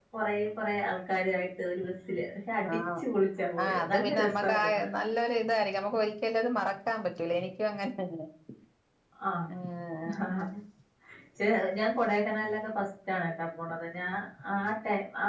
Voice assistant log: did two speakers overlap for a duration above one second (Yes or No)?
Yes